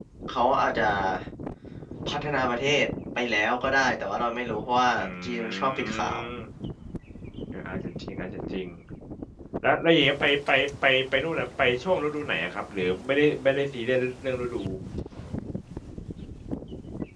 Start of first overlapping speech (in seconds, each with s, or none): 5.0 s